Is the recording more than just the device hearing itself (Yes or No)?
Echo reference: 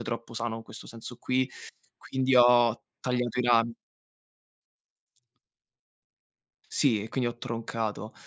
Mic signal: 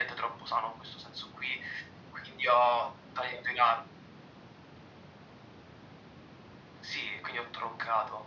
No